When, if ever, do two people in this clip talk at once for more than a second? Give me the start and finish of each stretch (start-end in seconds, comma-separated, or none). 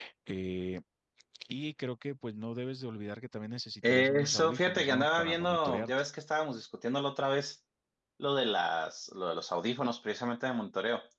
3.9-5.9